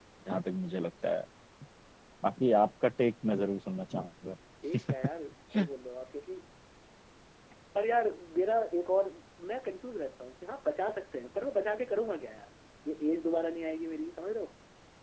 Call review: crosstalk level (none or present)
none